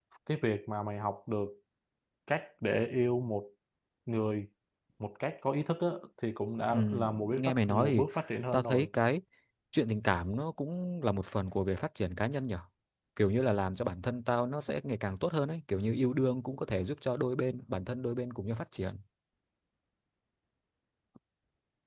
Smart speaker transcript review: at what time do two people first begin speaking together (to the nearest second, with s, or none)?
7 s